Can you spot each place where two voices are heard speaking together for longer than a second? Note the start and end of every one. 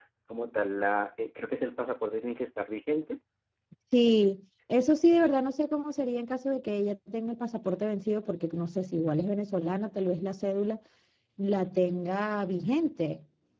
none

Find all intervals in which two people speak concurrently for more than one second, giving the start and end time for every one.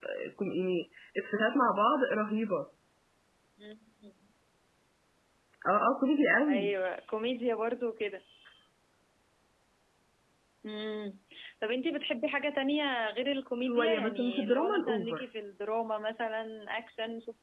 13.6-15.2

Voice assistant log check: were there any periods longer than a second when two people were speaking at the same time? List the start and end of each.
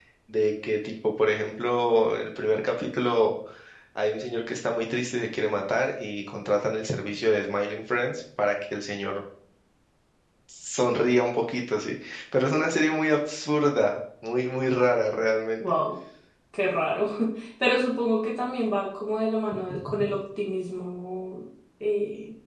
none

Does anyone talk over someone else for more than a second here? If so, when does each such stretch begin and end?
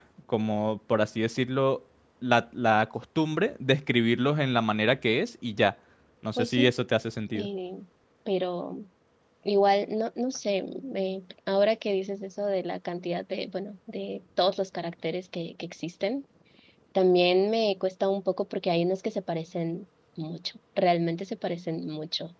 none

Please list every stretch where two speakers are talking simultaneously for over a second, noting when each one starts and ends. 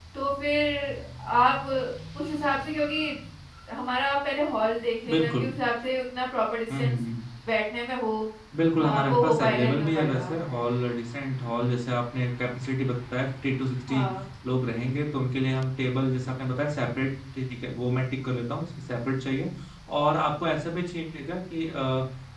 8.8-10.3

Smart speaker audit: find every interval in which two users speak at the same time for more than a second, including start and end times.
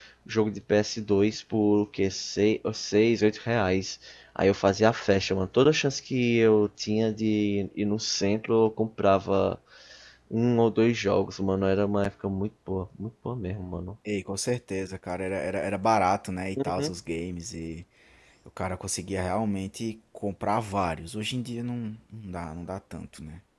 none

